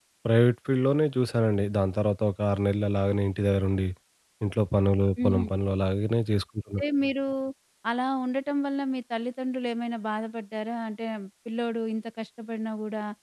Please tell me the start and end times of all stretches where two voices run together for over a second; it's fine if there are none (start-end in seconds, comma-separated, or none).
none